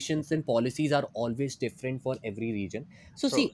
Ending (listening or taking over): listening